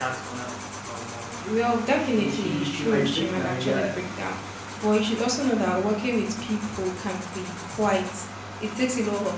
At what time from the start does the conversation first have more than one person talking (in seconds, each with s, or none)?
2.0 s